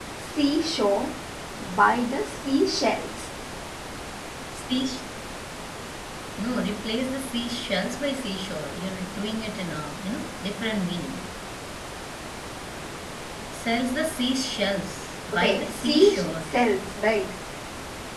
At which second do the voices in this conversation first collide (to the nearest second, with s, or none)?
15 s